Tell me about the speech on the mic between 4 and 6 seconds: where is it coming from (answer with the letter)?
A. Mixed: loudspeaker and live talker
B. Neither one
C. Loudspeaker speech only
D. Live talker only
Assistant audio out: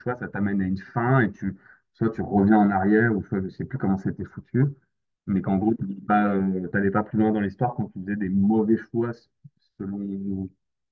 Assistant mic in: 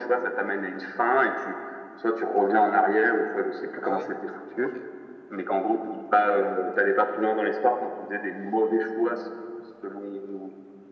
A